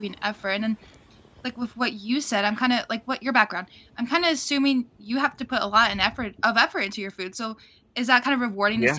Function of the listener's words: listening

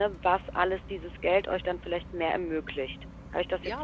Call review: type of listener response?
taking over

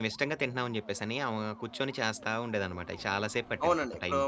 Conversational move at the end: taking over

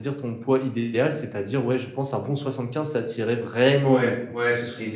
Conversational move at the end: taking over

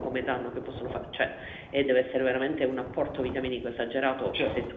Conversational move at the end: listening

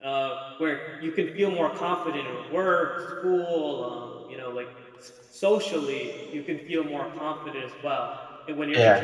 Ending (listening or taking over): listening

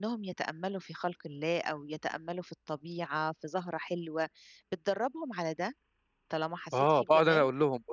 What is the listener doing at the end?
taking over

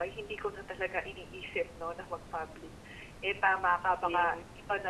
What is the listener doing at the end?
listening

